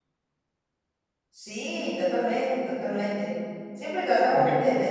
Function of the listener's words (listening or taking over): listening